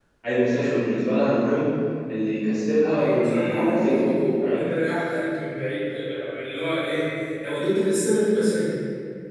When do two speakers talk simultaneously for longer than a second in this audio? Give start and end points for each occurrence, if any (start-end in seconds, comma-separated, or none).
2.9-4.1